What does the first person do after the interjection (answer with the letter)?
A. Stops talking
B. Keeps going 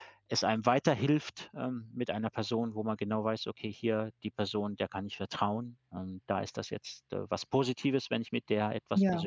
B